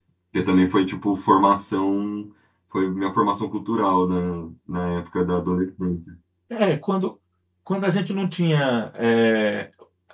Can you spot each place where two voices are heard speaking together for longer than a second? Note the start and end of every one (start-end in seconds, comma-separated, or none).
none